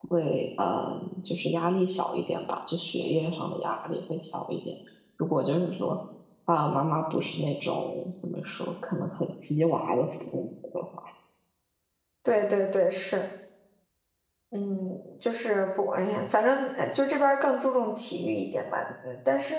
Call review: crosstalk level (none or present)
none